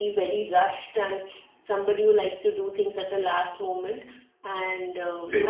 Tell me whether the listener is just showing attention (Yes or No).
Yes